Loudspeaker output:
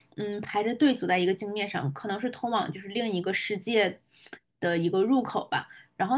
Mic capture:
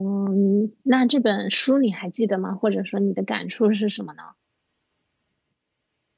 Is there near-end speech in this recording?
Yes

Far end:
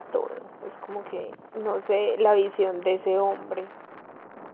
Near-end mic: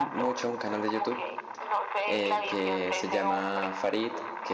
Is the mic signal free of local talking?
No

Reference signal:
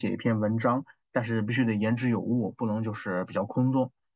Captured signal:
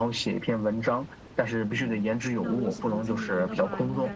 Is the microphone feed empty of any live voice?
No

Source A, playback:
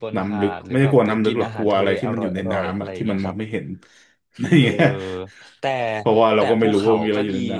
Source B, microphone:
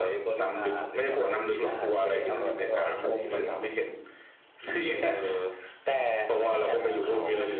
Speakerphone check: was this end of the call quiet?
No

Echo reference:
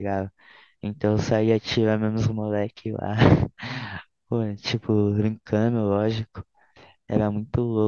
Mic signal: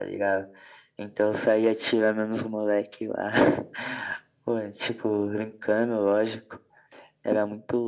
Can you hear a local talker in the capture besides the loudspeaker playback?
No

